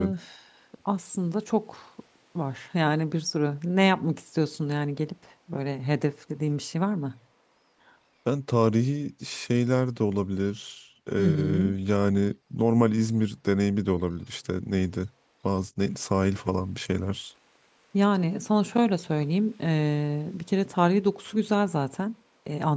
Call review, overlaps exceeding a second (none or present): none